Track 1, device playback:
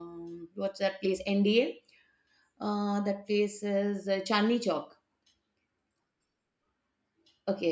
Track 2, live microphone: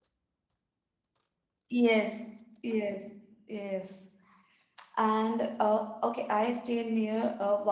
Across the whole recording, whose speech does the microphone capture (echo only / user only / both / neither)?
user only